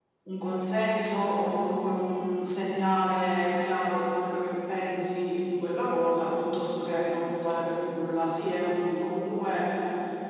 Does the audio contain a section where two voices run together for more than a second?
No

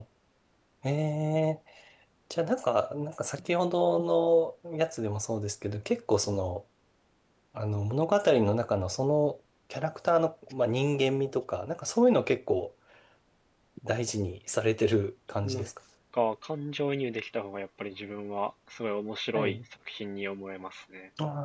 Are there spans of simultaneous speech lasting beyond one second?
No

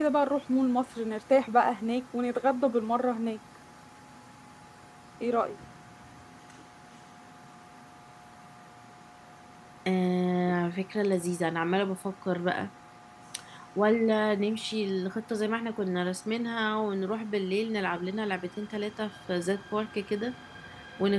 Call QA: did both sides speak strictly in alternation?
Yes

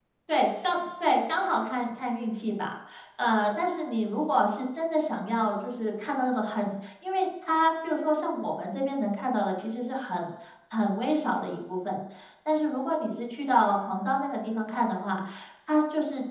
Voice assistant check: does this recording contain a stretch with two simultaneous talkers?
No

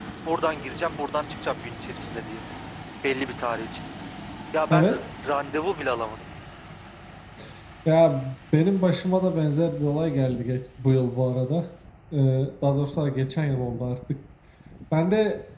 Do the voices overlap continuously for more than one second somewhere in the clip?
No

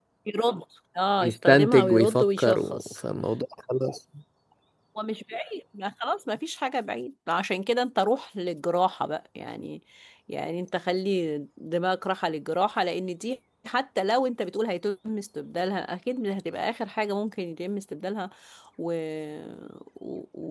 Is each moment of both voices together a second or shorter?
No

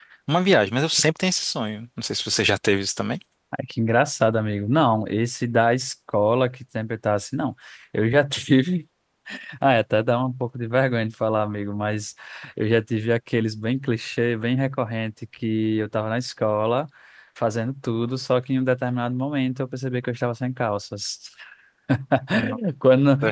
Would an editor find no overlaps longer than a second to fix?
Yes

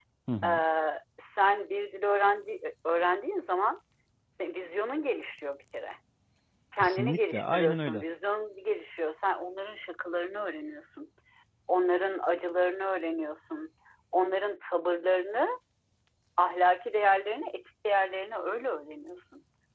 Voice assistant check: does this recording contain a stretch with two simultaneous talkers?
Yes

